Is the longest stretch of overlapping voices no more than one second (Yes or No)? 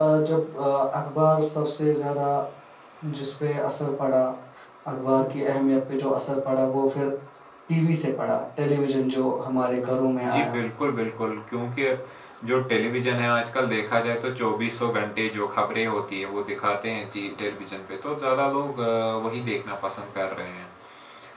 Yes